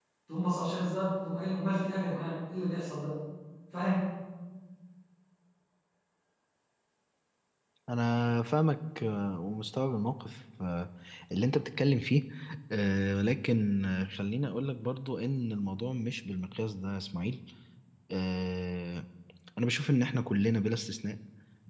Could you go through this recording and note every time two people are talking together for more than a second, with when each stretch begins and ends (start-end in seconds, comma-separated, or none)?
none